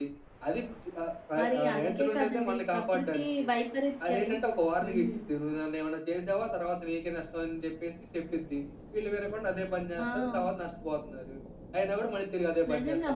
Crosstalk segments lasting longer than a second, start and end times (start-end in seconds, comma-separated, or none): 1.4-3.4